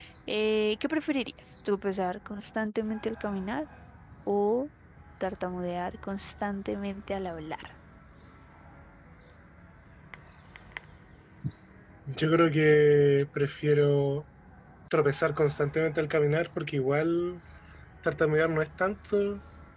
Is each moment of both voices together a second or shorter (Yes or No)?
Yes